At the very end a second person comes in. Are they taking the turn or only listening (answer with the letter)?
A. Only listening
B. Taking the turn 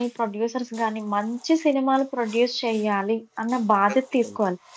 A